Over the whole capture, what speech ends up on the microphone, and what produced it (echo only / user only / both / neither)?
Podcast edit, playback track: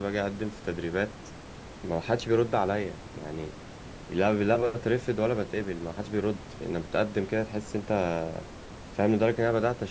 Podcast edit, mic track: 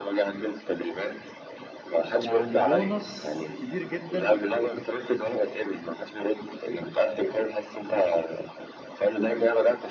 both